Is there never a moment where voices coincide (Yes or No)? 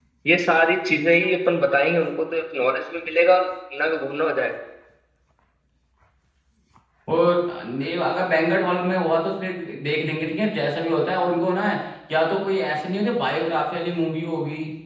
Yes